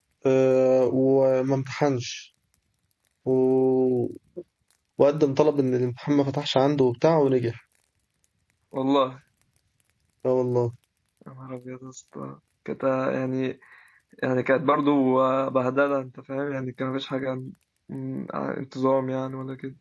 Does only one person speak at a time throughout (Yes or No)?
Yes